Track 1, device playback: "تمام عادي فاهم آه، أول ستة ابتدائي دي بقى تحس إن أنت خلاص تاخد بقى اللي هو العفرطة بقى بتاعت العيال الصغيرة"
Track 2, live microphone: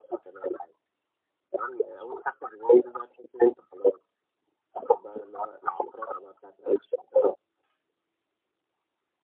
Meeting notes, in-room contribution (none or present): none